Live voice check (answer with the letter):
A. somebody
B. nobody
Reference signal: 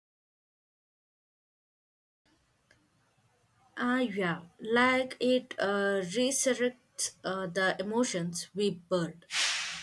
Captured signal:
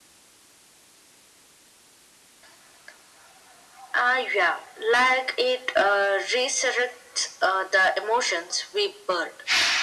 B